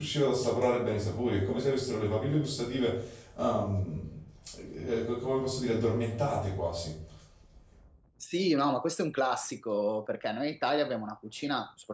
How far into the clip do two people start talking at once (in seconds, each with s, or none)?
none